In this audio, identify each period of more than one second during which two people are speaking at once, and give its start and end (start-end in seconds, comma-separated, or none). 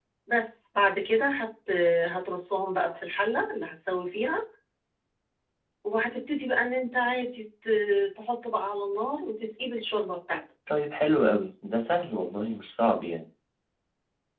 none